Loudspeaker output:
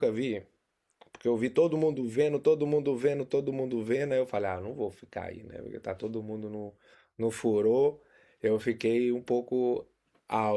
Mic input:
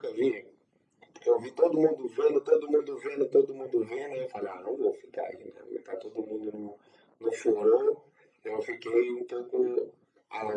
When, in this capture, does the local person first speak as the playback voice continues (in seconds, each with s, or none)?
none